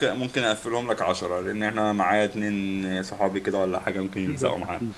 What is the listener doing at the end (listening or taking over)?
taking over